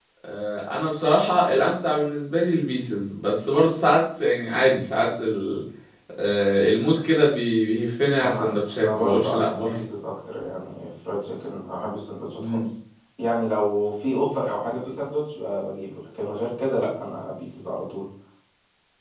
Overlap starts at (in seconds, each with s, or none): 8.2 s